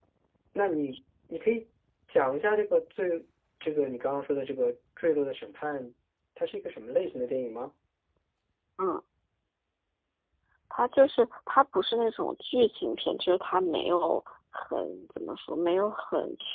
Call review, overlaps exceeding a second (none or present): none